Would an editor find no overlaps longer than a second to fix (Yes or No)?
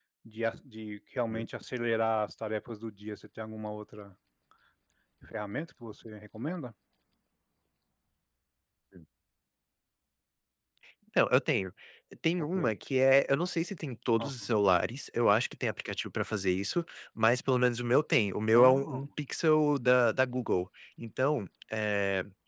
Yes